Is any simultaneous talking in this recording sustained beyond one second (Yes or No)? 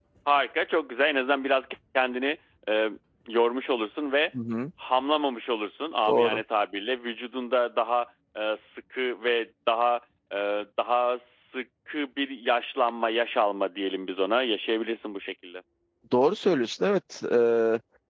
No